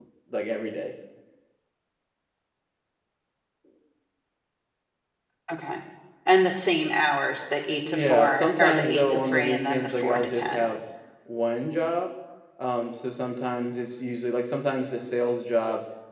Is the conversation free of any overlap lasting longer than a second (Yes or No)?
No